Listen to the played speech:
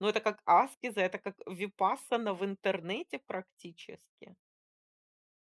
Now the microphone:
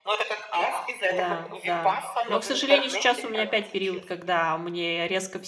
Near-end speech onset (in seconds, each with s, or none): 1.1 s